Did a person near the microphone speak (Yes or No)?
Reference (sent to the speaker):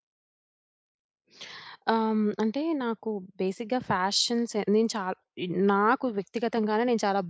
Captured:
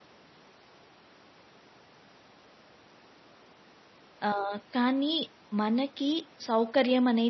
Yes